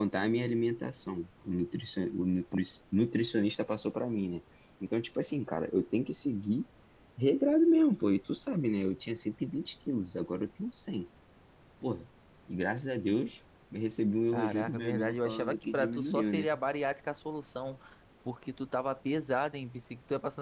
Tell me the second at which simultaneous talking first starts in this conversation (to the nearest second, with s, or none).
14 s